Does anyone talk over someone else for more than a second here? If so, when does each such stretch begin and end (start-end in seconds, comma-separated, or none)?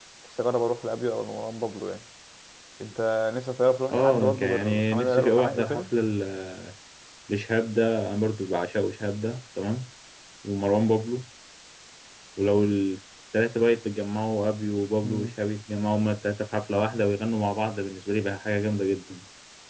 3.9-5.8